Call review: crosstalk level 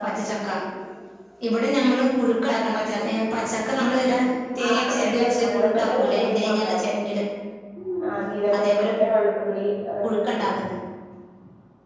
present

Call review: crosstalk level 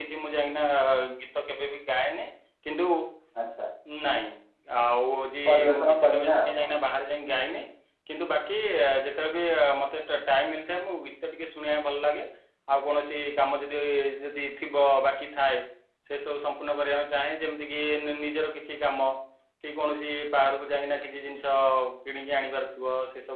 present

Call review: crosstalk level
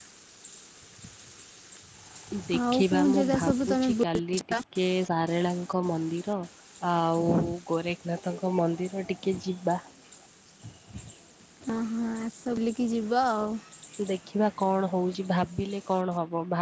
present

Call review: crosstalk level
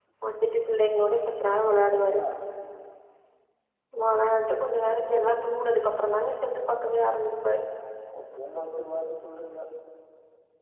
none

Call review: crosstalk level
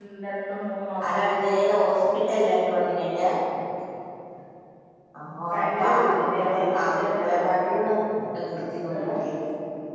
present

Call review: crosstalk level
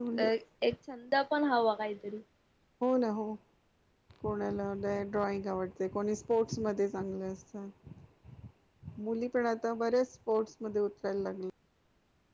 none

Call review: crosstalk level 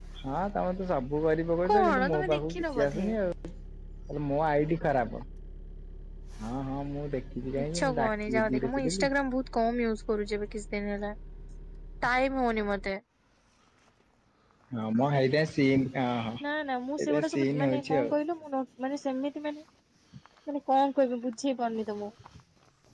present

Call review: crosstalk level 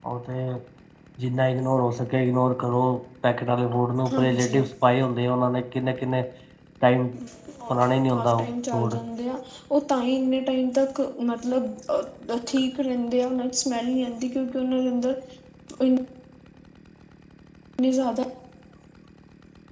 present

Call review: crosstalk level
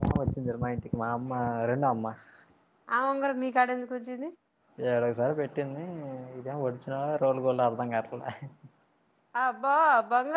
none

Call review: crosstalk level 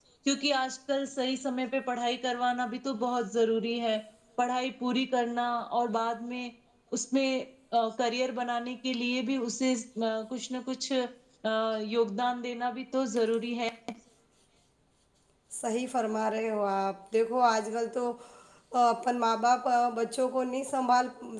none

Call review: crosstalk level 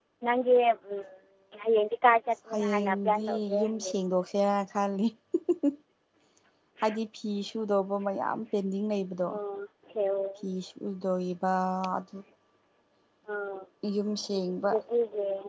present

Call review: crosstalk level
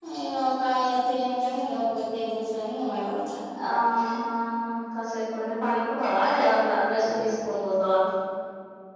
none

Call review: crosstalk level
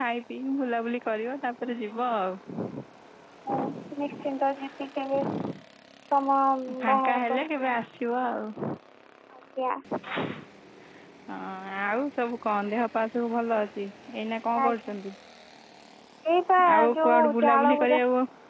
present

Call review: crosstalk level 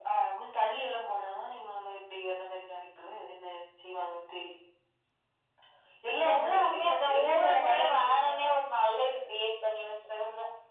present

